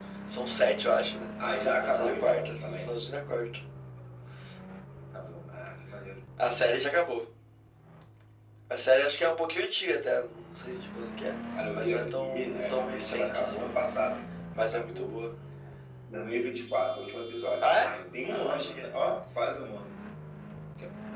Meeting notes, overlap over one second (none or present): present